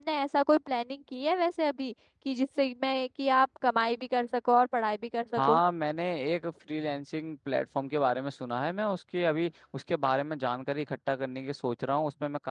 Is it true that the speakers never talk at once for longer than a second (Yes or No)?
Yes